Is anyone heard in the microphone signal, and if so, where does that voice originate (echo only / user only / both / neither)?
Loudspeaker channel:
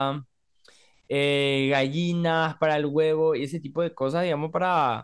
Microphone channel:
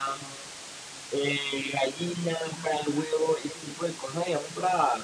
echo only